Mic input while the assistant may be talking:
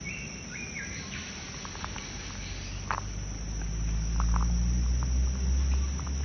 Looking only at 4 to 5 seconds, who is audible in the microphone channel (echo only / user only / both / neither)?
neither